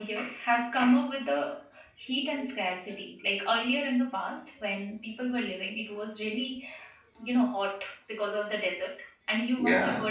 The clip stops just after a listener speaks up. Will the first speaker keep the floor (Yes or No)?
Yes